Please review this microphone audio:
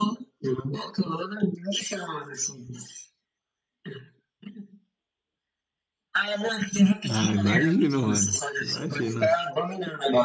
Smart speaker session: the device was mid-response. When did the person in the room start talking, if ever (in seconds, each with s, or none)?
7.1 s